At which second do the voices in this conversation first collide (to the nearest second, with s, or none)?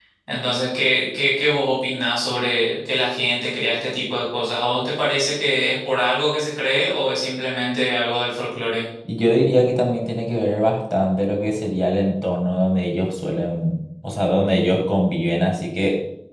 none